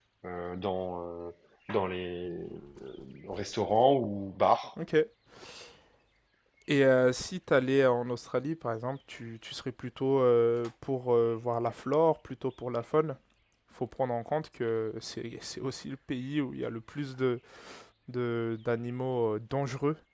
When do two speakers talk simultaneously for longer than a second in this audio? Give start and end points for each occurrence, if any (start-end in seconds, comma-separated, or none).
none